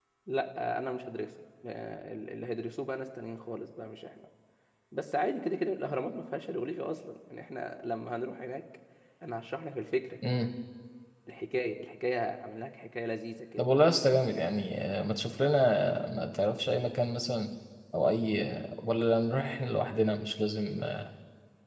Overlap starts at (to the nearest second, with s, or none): none